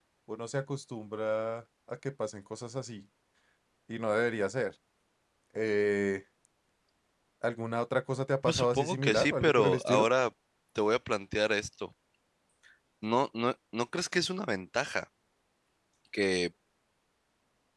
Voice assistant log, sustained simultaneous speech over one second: present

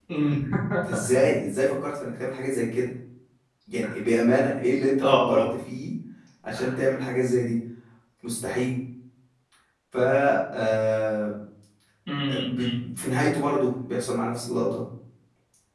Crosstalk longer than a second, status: none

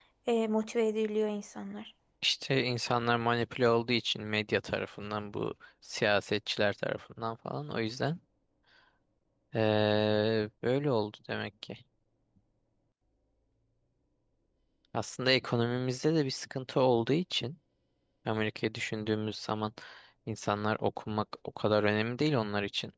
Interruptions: none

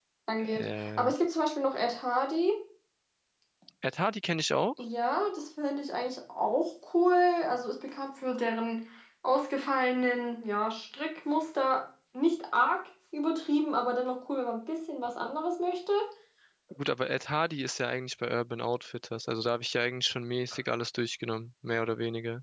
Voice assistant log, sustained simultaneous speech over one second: none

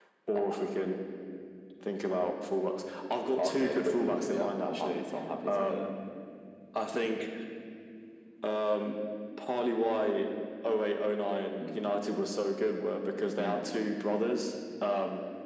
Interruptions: present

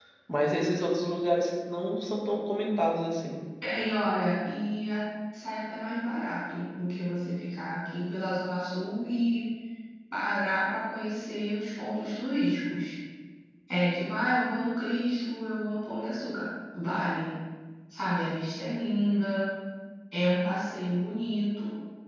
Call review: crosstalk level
none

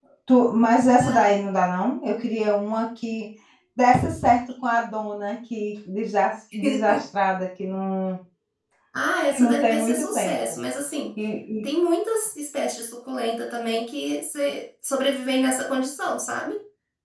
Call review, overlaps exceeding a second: present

